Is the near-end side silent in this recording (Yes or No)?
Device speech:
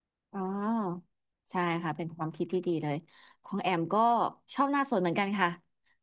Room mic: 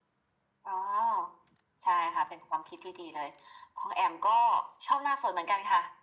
Yes